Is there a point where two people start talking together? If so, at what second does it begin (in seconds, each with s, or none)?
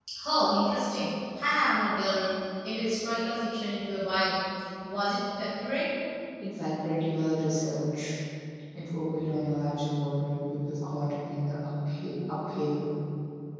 none